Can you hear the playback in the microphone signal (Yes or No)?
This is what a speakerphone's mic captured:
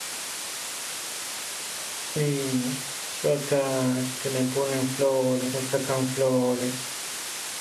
No